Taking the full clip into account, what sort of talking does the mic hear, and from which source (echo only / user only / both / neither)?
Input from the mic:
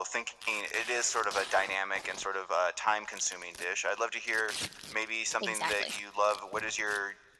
both